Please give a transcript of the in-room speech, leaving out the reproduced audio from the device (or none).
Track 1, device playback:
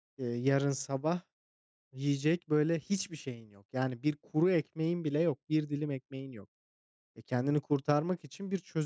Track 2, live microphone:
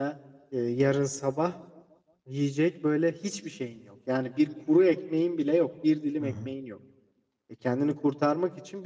Hı